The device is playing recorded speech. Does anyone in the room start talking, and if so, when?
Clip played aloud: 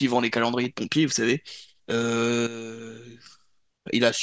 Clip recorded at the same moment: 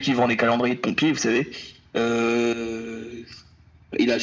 none

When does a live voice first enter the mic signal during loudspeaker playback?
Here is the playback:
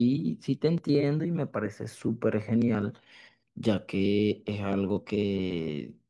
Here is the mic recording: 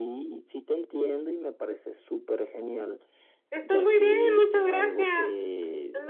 3.5 s

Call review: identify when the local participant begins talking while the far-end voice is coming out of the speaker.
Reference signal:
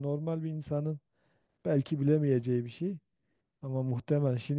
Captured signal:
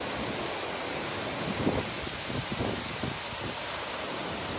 none

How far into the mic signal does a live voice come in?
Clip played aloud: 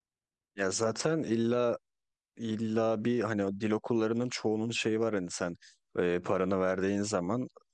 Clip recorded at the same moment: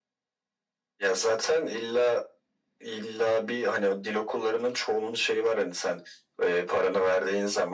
none

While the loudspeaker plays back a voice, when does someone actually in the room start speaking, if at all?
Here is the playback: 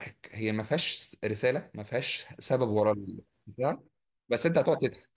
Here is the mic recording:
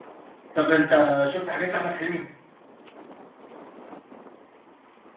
0.5 s

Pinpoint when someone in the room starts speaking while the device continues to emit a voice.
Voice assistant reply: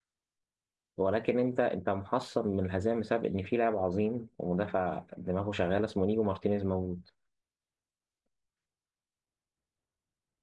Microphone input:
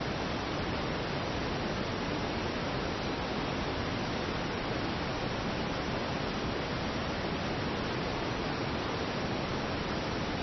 none

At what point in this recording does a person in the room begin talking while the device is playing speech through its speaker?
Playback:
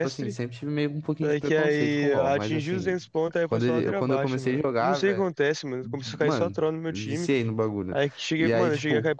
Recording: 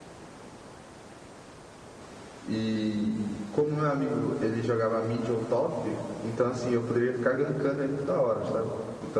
2.5 s

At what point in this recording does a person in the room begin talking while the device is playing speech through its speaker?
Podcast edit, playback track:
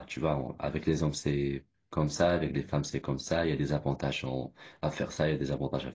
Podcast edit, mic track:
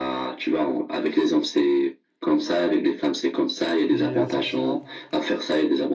3.9 s

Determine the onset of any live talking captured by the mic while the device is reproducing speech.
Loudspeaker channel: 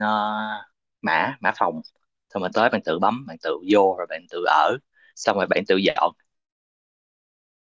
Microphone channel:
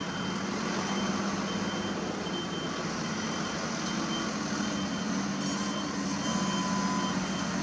none

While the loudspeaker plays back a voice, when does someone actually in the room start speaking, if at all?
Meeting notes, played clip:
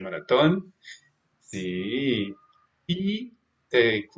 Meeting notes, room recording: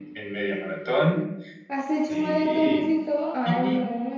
1.7 s

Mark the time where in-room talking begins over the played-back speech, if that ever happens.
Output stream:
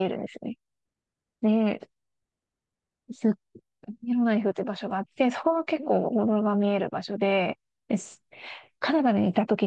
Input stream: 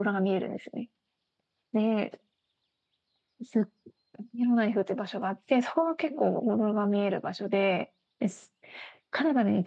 none

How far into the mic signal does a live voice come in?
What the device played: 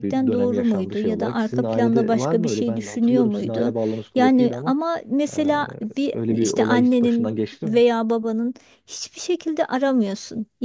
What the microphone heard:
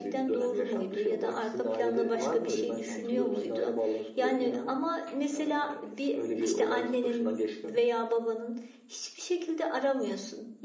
2.9 s

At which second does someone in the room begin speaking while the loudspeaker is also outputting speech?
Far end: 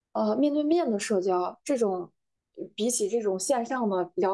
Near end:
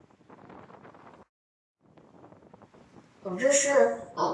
3.2 s

